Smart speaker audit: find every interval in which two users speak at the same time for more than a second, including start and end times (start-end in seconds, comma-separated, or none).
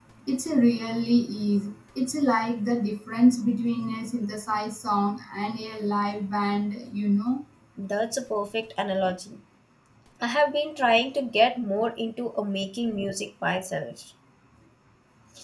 none